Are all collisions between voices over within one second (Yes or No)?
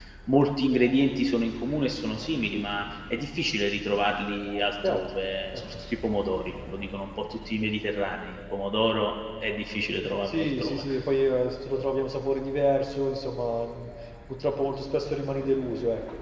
Yes